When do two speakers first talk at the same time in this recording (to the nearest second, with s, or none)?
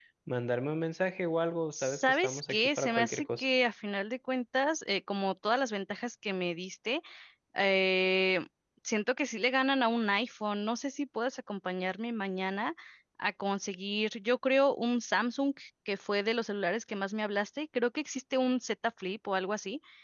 2 s